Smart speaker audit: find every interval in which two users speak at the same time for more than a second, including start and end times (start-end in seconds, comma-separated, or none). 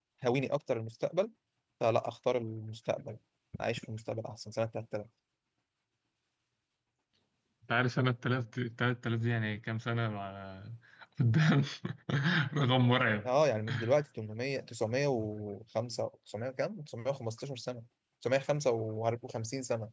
none